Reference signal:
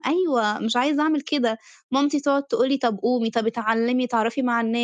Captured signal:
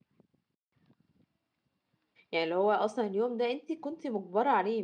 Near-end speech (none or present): present